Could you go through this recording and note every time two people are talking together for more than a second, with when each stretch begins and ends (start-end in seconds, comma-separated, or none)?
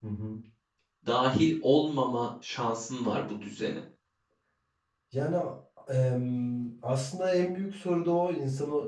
none